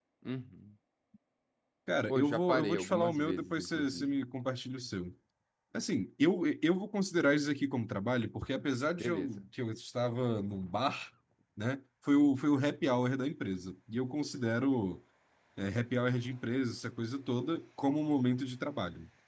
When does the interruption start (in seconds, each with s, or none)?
2.1 s